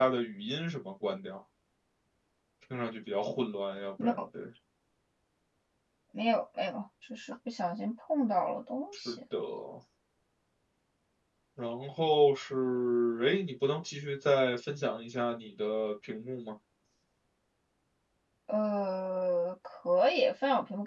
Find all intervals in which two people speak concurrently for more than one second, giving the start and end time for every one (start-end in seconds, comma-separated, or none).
none